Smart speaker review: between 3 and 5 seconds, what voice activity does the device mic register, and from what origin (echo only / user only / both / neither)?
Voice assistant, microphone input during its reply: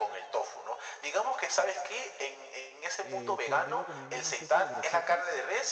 both